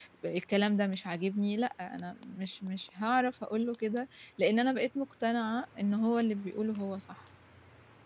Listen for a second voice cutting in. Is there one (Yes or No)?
No